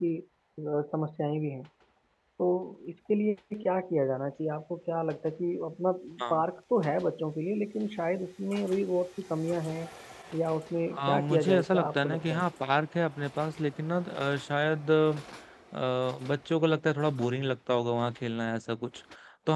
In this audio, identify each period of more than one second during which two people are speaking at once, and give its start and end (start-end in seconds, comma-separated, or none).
11.0-12.4